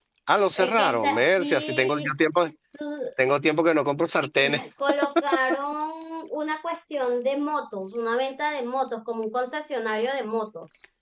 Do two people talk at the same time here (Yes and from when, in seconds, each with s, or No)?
Yes, from 0.6 s